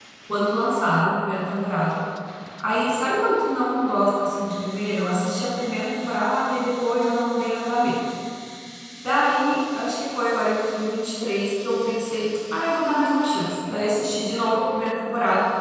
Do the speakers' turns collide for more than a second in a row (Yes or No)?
No